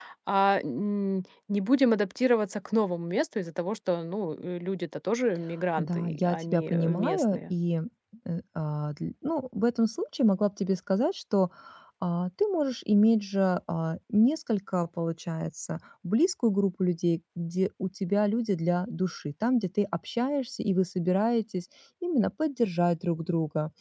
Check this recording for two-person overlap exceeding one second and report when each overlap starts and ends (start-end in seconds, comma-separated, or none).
5.8-7.4